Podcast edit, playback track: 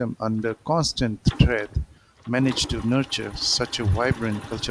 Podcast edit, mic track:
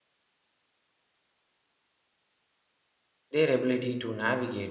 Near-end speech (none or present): present